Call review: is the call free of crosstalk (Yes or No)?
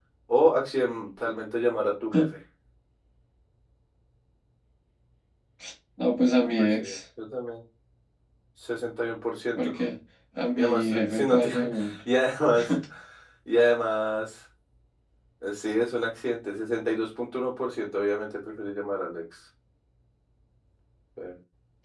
No